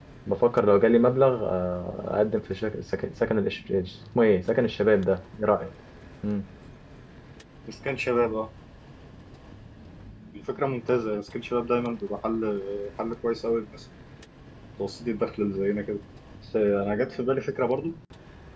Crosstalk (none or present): none